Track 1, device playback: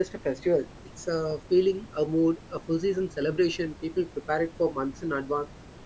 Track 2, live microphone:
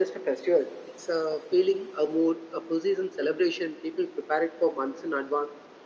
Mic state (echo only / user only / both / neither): echo only